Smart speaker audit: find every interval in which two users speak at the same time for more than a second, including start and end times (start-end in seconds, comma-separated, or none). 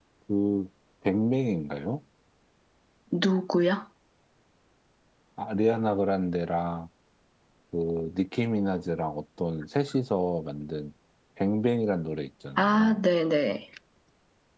none